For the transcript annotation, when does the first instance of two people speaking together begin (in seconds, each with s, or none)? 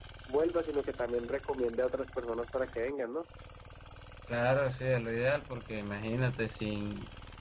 none